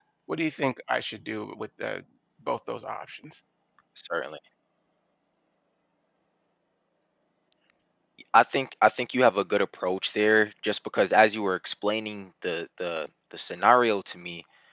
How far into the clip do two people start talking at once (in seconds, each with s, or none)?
none